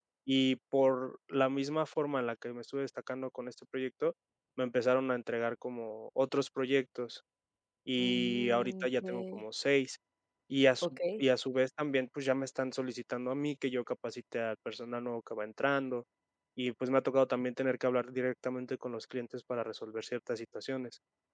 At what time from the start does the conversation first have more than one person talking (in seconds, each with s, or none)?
8.0 s